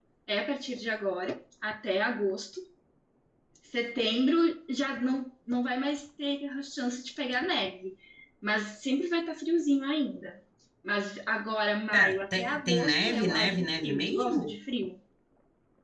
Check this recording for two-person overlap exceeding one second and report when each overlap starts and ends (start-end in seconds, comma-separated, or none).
11.9-14.6